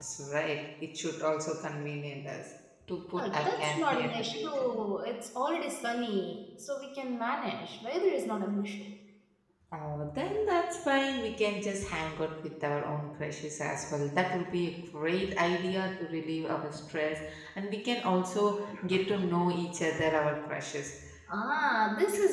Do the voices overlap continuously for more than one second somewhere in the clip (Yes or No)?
Yes